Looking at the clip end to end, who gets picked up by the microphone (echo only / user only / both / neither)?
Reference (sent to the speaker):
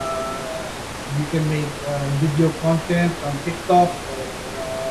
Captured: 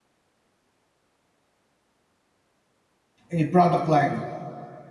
user only